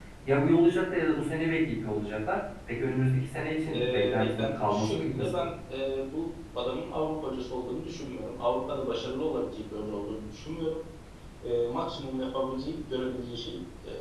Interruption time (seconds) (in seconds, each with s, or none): 3.7 s